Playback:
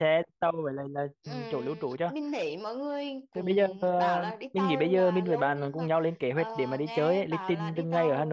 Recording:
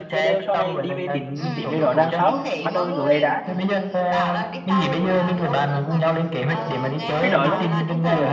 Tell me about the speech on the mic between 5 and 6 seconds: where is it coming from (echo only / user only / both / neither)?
echo only